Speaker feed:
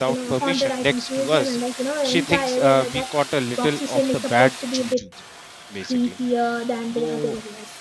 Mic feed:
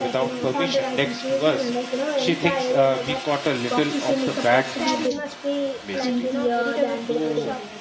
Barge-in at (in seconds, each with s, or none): 4.8 s